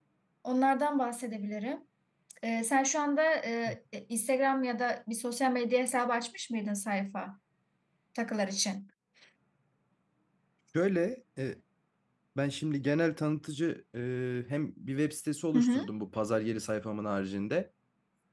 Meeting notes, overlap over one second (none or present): none